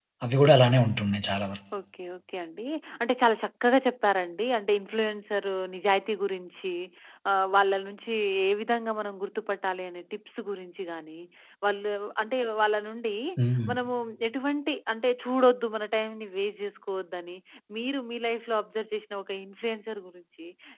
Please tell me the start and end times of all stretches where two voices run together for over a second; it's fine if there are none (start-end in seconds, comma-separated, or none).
none